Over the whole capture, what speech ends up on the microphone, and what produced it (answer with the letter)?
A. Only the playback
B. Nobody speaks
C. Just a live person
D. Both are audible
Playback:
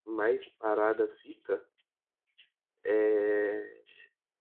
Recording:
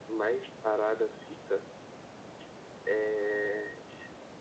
A